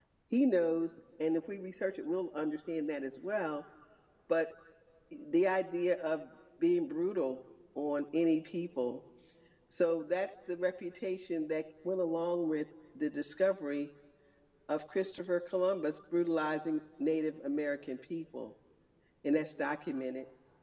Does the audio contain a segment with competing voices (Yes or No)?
No